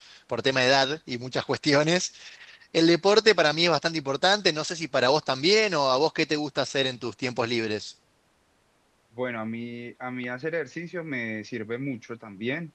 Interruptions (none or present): none